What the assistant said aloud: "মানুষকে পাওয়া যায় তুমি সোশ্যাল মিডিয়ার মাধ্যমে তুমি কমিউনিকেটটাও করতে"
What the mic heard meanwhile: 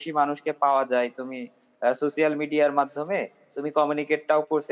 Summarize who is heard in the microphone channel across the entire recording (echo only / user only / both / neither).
echo only